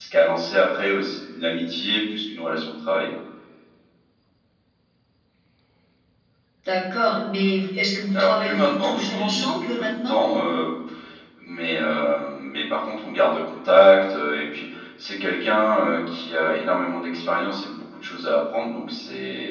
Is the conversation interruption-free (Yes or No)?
No